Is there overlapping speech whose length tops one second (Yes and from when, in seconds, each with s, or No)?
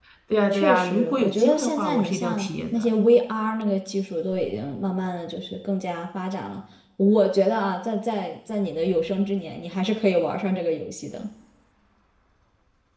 Yes, from 0.5 s